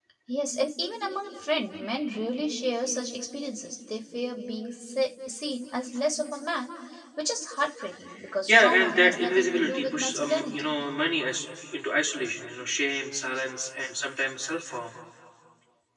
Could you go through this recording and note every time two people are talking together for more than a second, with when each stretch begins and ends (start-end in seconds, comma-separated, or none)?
8.5-10.7